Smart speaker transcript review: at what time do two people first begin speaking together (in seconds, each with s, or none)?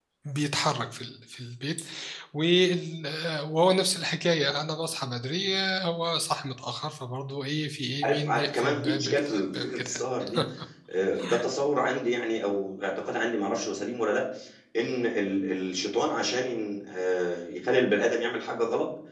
8.0 s